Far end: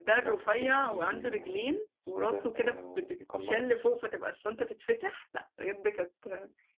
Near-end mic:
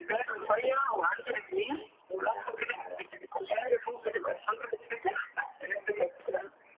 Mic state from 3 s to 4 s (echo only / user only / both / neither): echo only